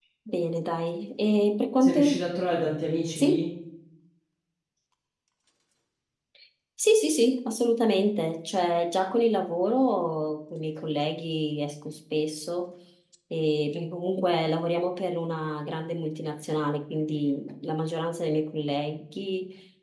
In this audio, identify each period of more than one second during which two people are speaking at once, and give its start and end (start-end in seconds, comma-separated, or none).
none